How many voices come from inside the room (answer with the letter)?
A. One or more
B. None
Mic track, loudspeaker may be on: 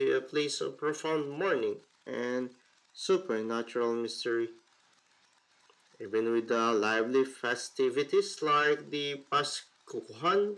B